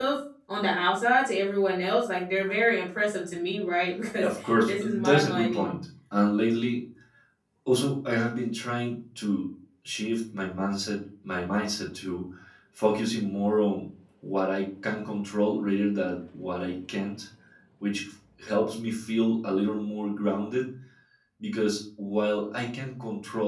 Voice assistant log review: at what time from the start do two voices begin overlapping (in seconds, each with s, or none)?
4.2 s